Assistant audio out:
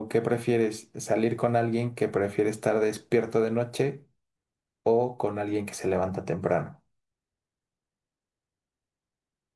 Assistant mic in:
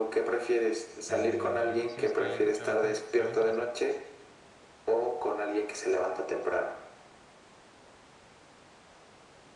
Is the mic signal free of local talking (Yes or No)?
No